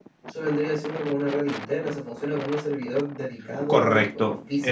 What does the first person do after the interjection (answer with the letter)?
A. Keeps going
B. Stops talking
B